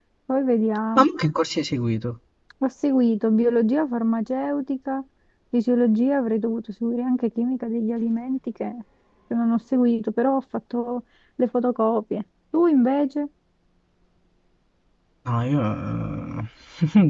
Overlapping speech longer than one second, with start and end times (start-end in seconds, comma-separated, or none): none